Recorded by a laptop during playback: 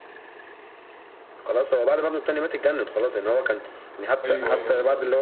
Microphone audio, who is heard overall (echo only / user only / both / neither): both